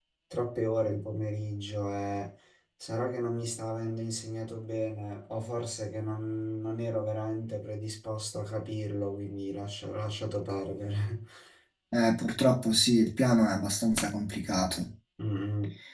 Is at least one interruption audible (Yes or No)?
No